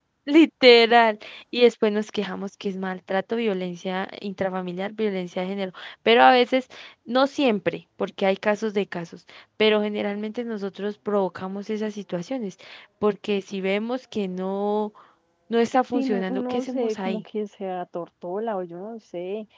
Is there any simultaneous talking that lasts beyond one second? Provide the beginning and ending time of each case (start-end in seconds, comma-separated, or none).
15.9-17.2